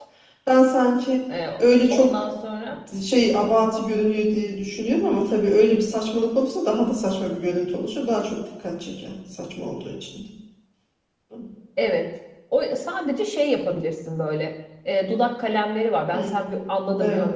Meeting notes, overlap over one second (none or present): none